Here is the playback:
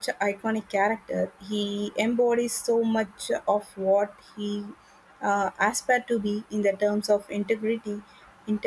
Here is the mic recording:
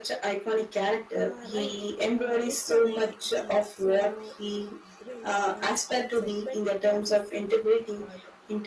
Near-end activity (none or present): present